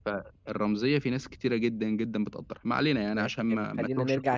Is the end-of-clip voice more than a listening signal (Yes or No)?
Yes